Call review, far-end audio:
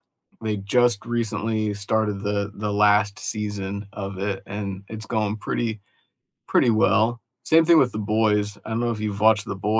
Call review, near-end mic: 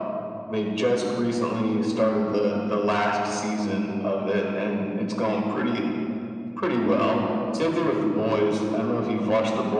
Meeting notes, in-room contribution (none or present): none